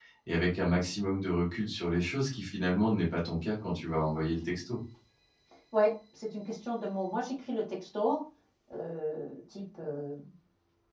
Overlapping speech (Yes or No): No